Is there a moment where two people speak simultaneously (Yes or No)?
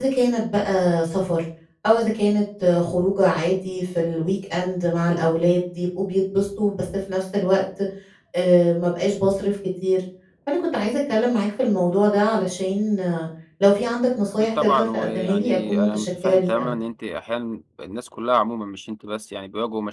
Yes